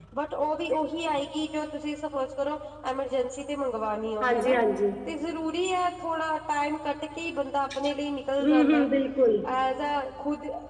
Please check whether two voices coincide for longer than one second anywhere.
No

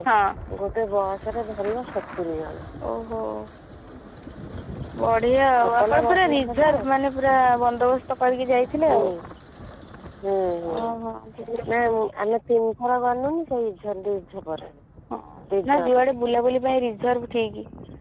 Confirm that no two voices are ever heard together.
No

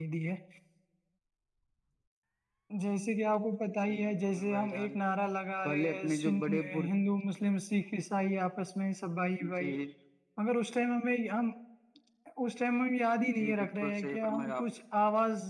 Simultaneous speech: Yes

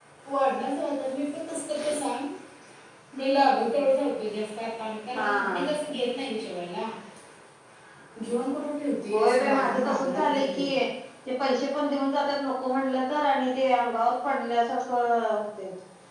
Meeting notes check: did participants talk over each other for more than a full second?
Yes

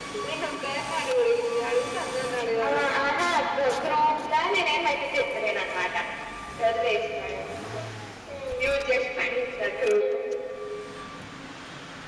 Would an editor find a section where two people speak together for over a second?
No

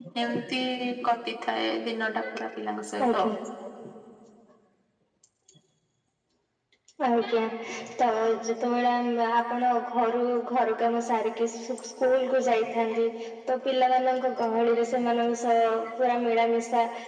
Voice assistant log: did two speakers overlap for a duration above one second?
No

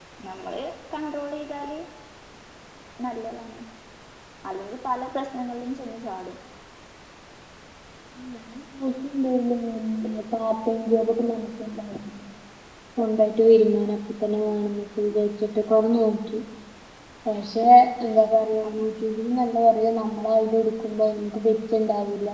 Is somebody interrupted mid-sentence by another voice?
No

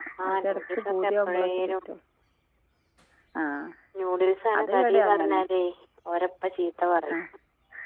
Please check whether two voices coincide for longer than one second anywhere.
Yes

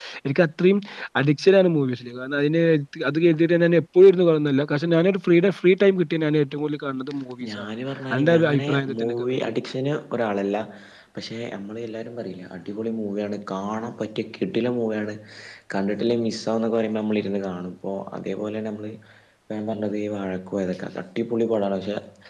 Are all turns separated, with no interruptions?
No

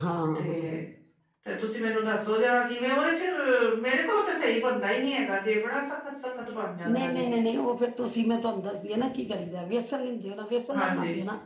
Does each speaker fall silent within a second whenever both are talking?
Yes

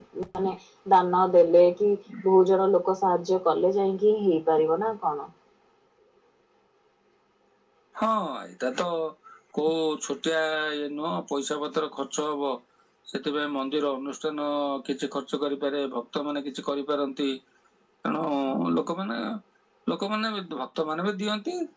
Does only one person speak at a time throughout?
Yes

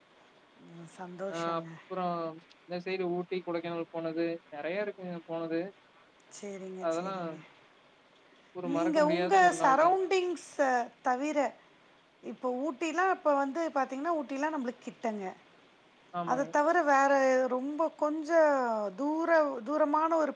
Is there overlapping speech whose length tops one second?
Yes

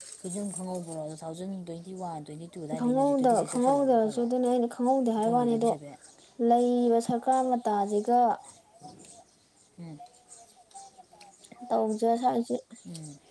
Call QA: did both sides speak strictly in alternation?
No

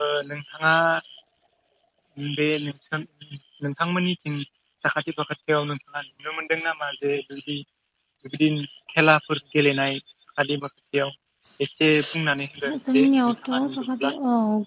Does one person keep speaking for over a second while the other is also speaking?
Yes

